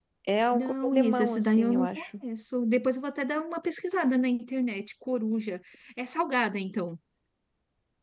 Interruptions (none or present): present